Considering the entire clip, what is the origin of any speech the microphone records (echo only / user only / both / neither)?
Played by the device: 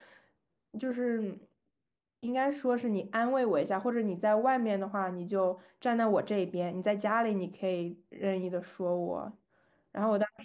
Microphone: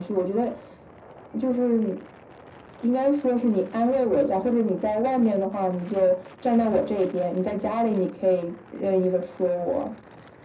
echo only